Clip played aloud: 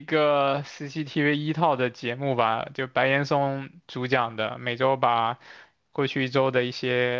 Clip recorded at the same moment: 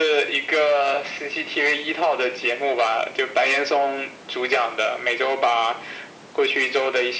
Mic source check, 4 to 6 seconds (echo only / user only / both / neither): echo only